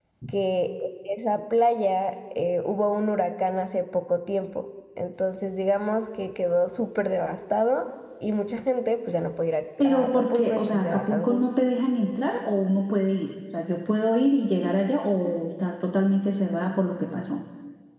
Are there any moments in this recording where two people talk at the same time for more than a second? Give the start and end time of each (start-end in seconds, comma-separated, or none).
9.8-11.5